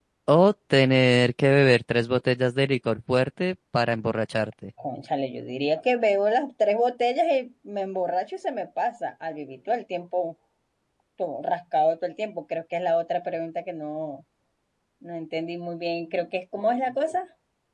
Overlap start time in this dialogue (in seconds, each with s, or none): none